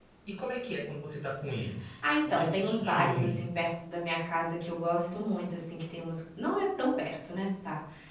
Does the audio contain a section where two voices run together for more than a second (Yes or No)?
Yes